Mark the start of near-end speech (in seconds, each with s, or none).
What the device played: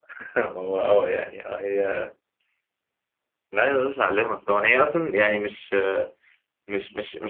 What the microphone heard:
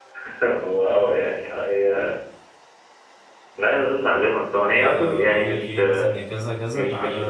4.7 s